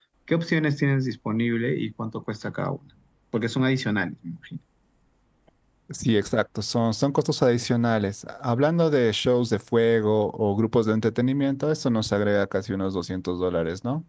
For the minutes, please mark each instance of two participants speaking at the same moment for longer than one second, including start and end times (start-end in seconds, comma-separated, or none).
none